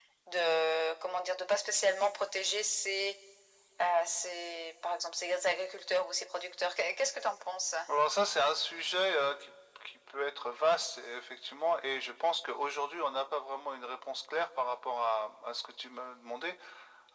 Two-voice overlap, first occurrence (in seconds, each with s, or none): none